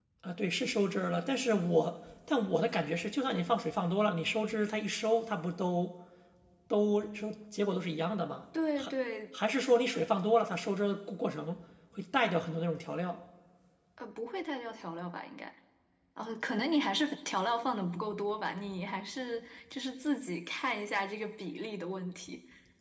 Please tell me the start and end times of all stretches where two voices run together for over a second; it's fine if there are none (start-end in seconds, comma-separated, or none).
none